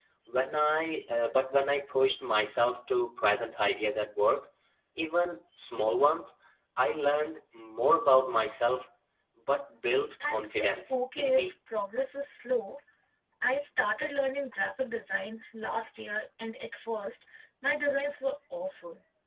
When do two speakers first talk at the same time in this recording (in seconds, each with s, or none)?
10.2 s